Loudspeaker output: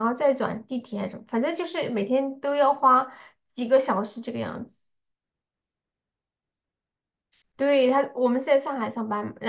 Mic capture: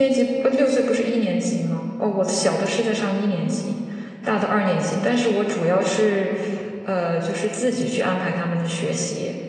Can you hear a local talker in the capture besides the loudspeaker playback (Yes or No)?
Yes